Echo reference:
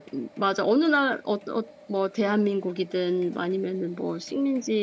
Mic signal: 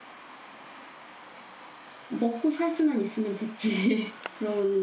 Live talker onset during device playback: 2 s

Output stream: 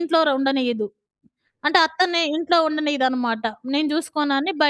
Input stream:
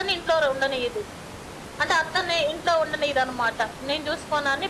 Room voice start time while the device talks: none

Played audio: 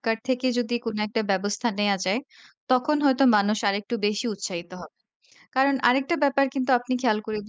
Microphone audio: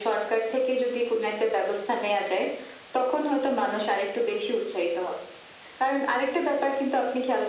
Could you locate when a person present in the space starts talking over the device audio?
none

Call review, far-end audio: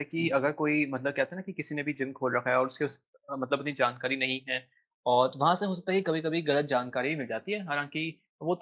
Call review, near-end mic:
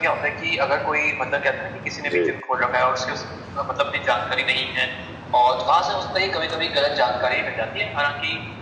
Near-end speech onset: 2 s

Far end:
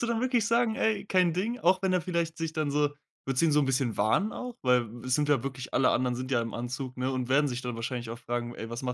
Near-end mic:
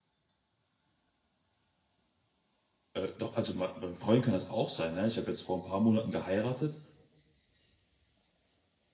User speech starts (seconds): 3 s

